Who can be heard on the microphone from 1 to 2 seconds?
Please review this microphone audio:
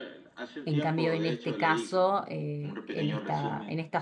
both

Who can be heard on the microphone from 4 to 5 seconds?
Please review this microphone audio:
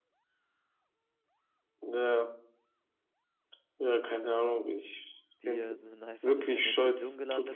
echo only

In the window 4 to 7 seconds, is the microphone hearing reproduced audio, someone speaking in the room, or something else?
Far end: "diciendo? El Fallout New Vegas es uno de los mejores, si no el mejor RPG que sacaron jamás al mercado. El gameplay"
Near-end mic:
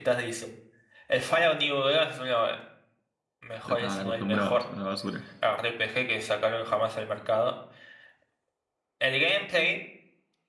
both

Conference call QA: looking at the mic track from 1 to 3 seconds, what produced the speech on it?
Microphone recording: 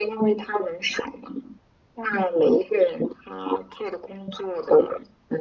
echo only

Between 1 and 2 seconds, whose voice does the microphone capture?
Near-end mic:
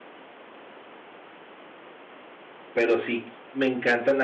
neither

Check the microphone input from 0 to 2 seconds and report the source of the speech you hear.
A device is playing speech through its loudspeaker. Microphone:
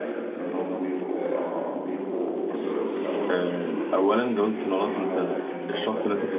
echo only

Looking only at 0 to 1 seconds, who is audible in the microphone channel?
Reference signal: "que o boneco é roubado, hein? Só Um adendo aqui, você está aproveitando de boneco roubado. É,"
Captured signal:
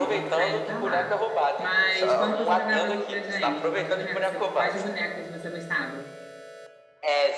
both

